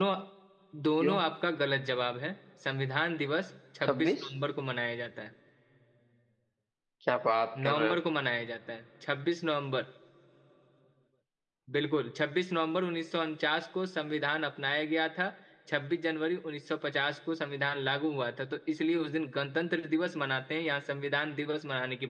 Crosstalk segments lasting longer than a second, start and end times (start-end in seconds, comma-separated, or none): none